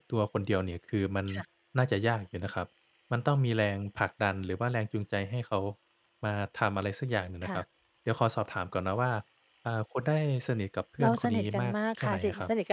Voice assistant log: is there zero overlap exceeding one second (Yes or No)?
No